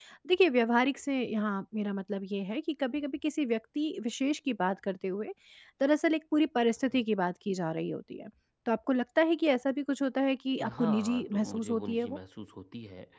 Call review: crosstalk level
present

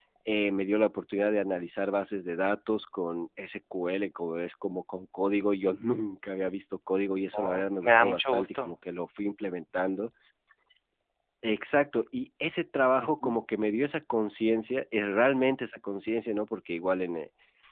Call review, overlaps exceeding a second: present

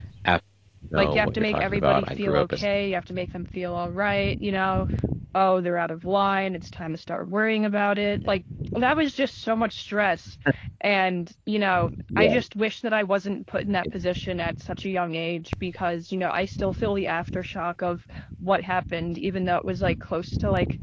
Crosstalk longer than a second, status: present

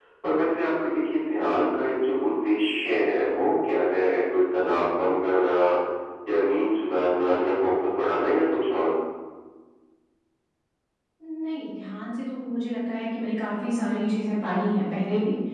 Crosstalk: none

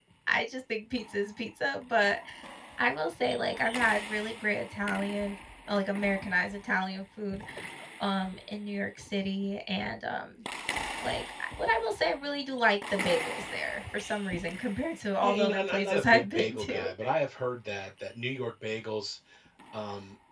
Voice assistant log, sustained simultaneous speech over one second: present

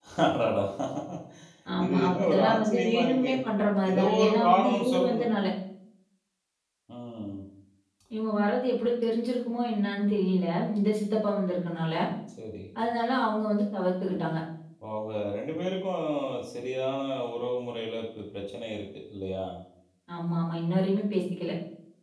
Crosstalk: present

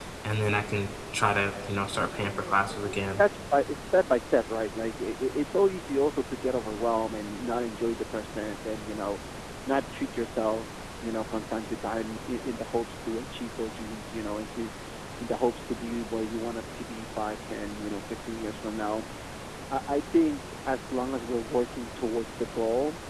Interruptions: present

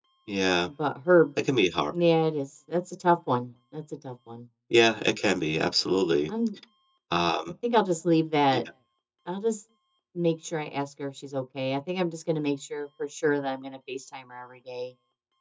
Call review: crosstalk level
none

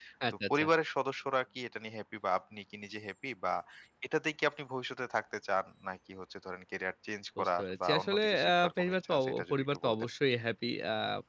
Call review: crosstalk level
present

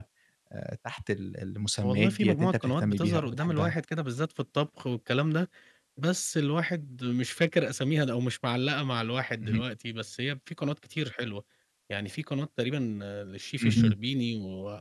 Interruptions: present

